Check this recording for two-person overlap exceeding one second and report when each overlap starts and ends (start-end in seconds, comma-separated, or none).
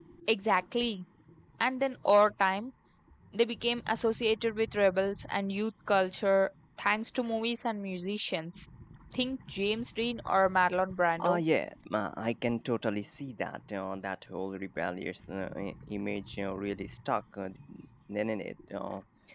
none